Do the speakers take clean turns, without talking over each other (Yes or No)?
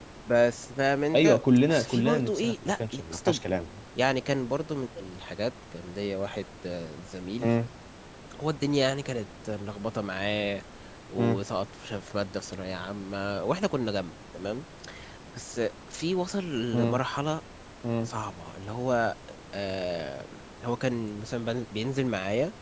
No